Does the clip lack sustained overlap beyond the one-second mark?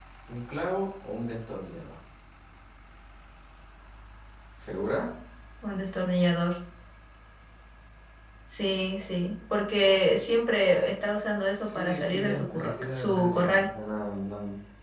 No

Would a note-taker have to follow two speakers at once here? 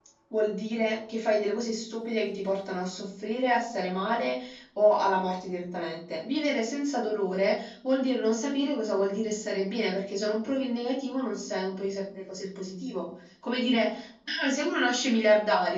No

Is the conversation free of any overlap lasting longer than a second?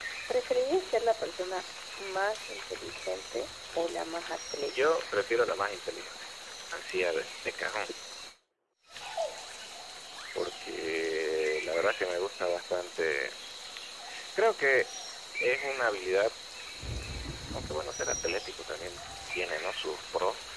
No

